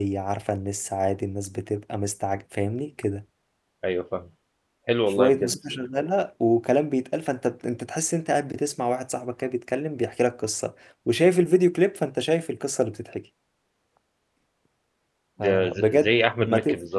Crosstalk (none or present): present